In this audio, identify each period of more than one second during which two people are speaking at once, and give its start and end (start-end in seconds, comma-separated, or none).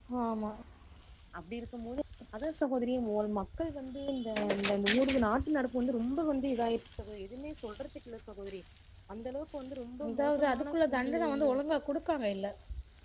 10.1-11.5